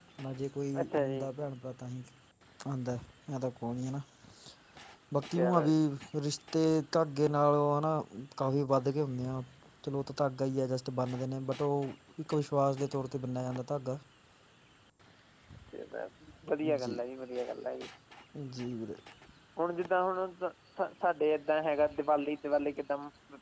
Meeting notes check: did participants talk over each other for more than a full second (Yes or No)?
No